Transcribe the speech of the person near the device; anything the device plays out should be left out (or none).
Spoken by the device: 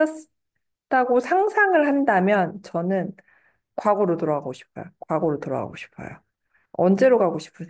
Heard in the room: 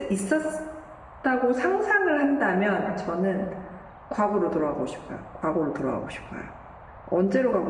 none